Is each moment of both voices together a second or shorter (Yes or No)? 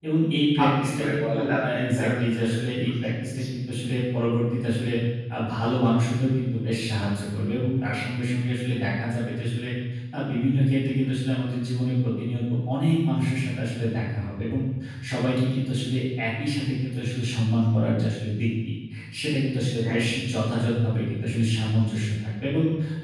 No